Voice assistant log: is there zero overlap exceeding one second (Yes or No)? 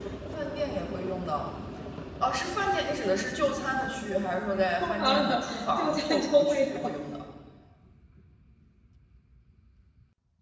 No